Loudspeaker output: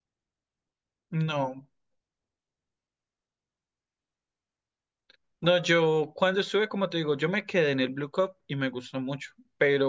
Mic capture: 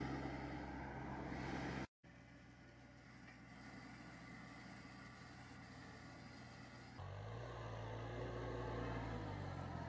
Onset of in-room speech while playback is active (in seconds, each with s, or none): none